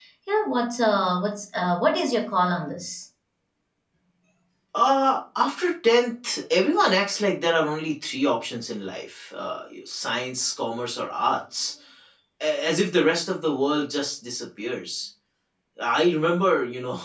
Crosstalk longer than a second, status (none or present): none